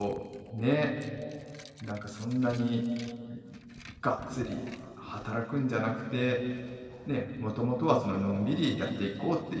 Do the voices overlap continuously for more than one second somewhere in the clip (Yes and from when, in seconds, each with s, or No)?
No